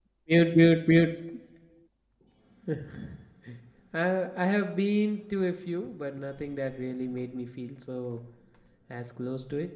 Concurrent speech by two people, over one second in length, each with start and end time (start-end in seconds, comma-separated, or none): none